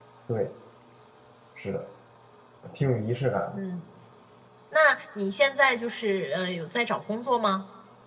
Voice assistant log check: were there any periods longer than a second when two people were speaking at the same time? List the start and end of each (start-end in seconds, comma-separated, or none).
none